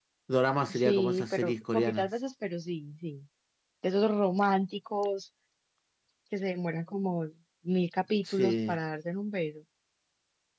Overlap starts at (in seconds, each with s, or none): 0.7 s